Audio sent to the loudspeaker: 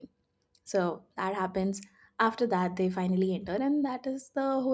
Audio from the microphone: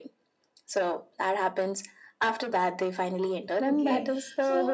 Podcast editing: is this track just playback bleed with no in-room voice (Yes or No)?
No